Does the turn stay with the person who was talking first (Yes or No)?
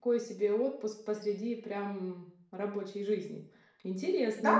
No